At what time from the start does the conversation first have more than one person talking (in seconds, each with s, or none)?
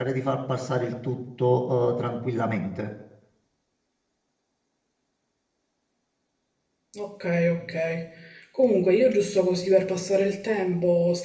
none